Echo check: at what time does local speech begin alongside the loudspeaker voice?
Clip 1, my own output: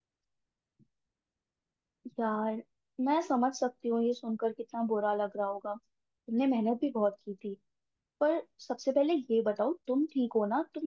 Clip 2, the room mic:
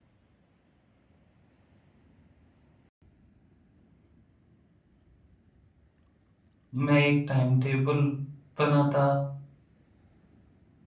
7 s

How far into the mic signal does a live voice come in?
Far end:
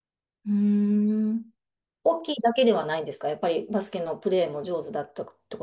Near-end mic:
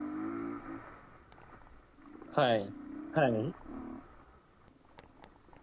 2 s

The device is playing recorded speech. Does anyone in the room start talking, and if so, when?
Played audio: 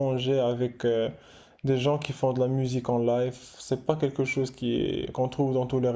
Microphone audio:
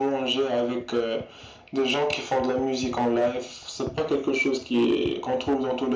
none

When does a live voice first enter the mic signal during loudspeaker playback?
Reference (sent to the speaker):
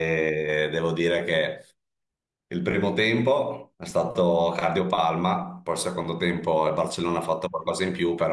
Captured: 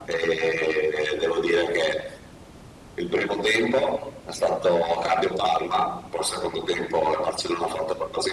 none

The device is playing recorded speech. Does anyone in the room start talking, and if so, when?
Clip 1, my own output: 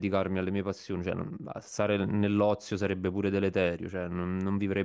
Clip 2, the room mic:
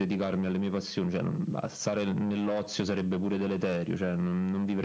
none

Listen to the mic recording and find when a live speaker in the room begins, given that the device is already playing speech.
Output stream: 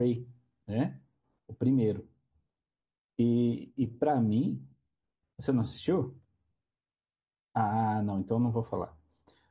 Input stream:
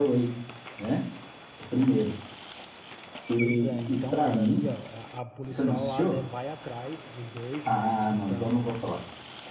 3 s

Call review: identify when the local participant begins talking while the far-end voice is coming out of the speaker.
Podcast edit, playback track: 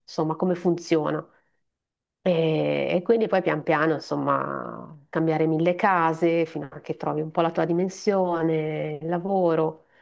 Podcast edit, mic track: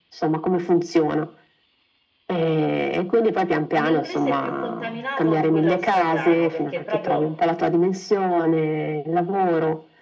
4 s

